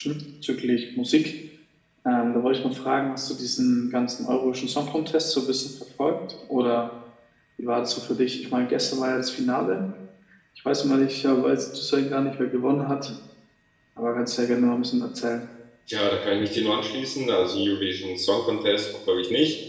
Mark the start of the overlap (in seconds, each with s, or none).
none